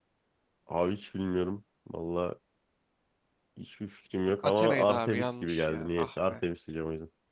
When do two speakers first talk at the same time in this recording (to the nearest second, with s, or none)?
4 s